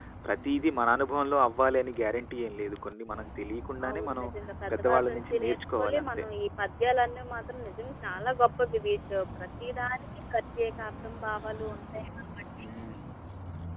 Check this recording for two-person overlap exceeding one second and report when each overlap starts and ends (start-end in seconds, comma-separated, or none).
4.8-6.1